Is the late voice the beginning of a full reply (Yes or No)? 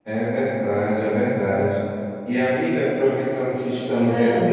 No